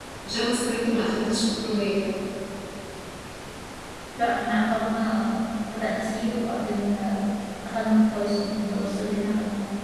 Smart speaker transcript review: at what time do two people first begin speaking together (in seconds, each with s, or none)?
none